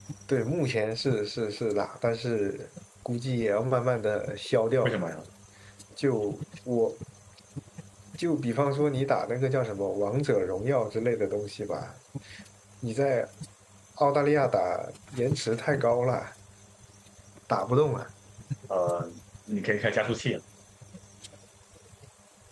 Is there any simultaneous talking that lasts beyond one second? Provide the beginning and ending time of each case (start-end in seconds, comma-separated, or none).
none